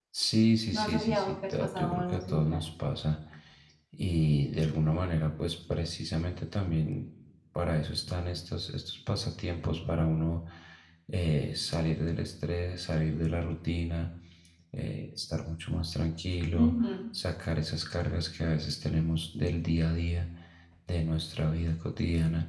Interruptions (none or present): present